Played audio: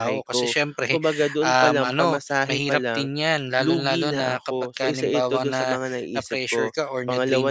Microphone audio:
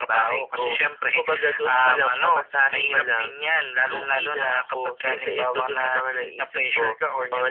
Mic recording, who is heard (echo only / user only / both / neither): echo only